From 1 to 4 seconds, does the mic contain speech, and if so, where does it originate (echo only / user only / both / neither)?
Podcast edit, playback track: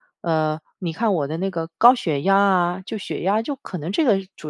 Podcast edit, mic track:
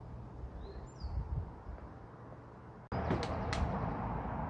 neither